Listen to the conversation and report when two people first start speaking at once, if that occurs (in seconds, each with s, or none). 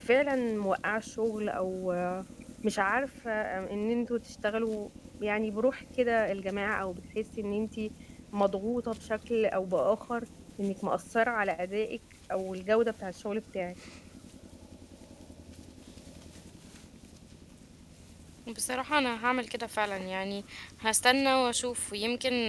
none